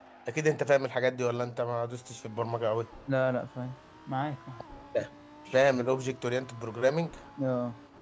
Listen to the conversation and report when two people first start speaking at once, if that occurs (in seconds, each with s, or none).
none